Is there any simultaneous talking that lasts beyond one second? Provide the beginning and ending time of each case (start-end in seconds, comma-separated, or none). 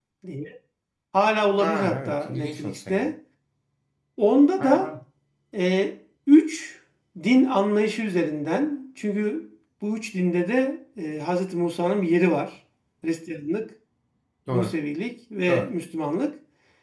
1.6-3.1